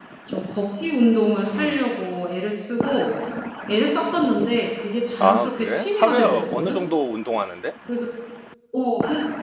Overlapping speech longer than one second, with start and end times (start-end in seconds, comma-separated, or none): 5.2-6.8